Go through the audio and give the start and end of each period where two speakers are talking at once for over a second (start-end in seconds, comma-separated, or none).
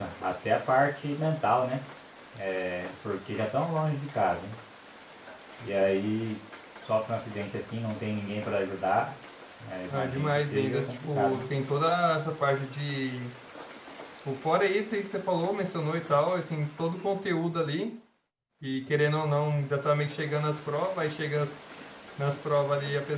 9.9-11.4